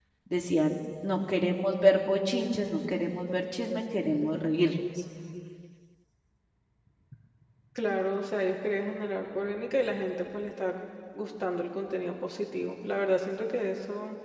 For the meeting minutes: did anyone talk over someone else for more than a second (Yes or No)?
No